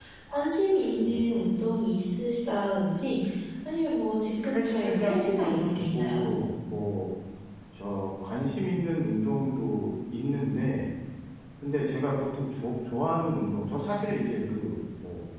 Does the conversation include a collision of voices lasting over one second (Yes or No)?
Yes